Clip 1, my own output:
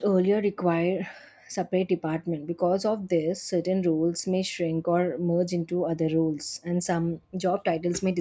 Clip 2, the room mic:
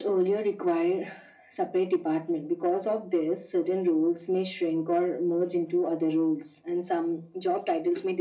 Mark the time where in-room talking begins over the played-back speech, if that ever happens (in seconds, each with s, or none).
none